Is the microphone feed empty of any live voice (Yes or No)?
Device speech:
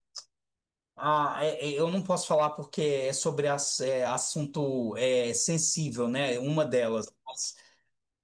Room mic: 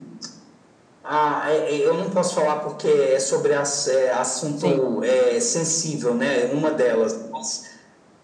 No